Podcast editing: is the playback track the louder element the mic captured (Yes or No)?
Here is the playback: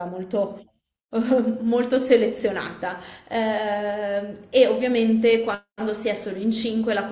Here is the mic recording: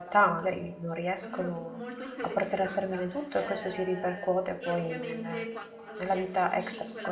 No